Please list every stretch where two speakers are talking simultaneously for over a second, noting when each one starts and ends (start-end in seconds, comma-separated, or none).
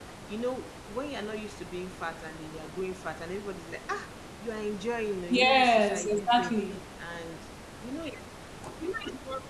5.3-6.6